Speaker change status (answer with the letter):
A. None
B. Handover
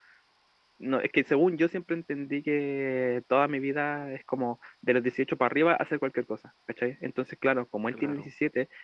A